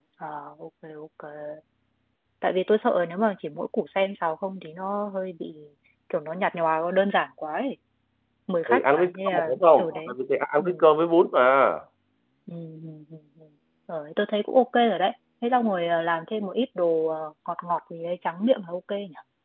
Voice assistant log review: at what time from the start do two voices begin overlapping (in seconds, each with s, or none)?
8.7 s